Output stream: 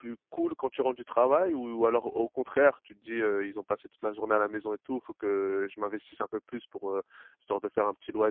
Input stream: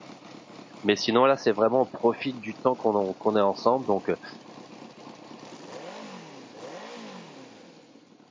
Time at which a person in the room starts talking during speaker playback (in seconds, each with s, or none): 0.8 s